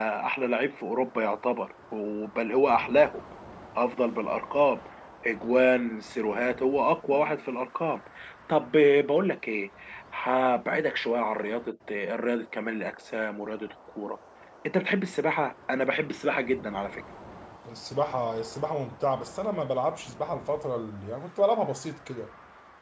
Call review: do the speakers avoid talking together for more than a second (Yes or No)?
Yes